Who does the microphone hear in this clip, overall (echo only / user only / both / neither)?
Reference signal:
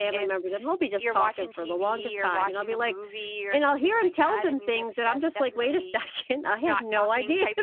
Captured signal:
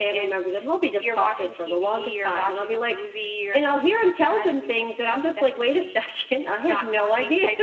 echo only